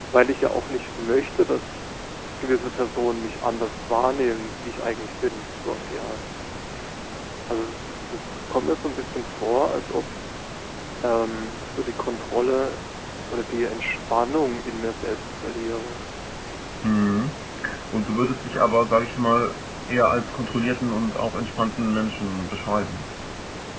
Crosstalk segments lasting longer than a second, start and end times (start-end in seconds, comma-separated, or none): none